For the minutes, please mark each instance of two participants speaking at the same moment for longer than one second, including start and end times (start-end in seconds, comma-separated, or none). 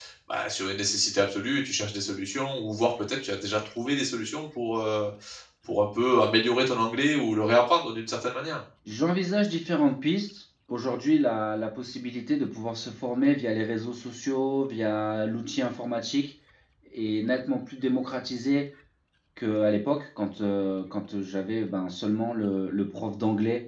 none